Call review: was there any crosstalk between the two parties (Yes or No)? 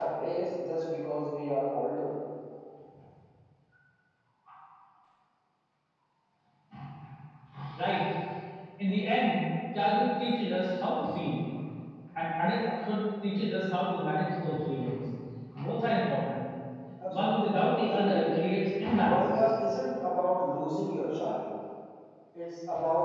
Yes